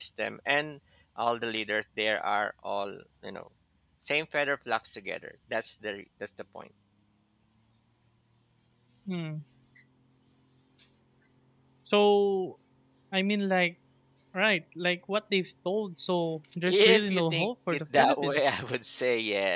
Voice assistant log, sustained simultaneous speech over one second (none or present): present